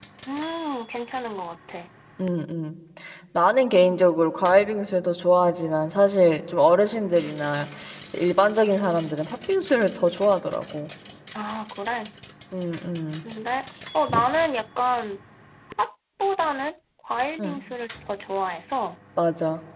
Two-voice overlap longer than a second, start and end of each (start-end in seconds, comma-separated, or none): none